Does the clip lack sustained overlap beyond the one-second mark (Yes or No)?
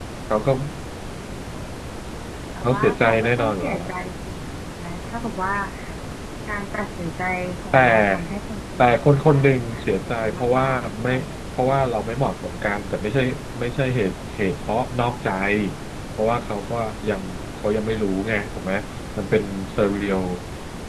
No